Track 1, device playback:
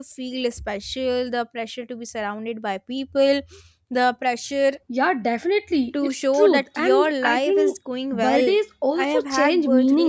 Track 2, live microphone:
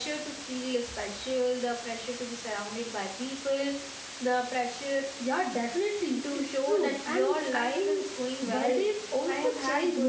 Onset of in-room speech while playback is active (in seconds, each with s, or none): none